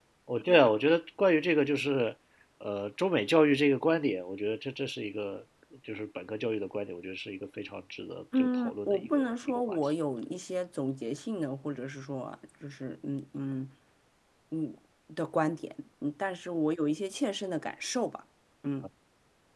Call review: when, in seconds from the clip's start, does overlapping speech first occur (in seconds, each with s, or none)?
8.3 s